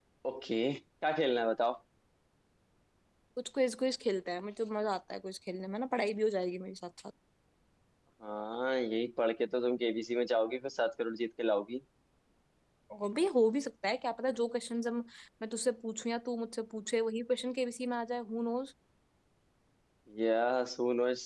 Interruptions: none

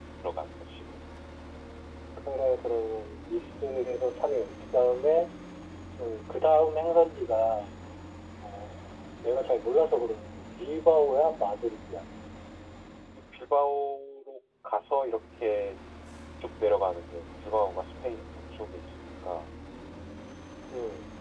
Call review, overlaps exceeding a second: none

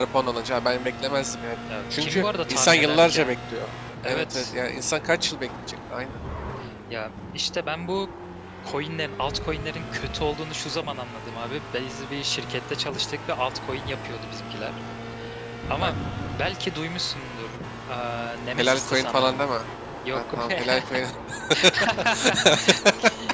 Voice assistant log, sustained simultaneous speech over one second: present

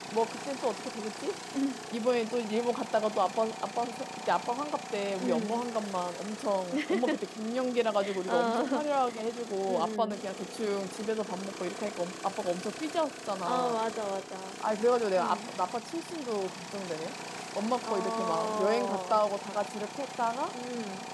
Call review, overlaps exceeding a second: present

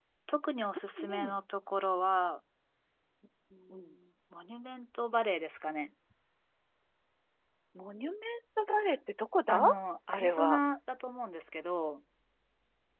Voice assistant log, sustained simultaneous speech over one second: none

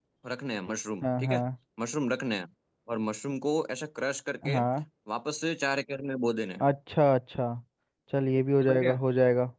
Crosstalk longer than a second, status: none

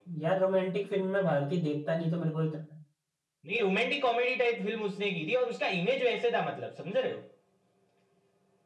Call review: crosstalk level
none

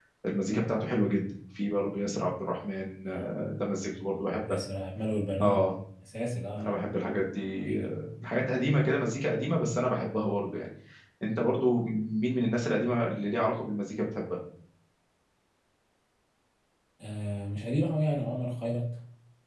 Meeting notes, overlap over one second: none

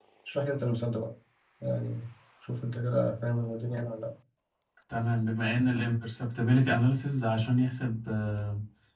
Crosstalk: none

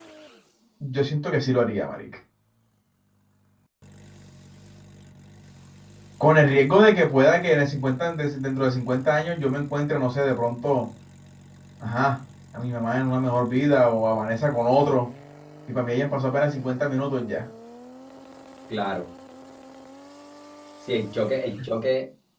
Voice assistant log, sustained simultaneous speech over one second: none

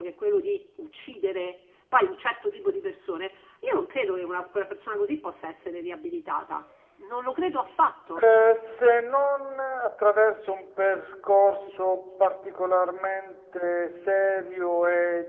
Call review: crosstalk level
none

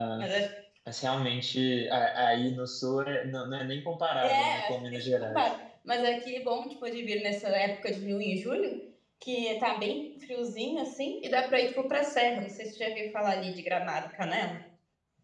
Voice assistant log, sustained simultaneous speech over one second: present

